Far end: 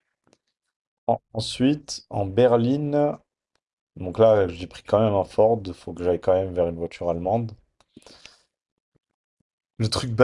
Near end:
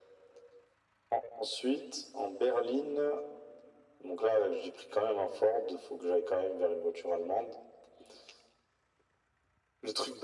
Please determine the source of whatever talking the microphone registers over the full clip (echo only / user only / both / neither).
echo only